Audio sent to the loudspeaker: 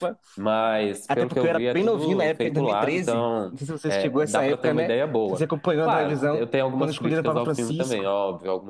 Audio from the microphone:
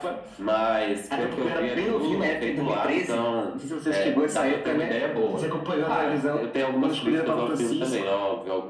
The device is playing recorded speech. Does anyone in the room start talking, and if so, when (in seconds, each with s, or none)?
none